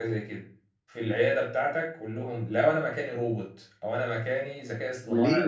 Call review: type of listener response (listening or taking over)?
taking over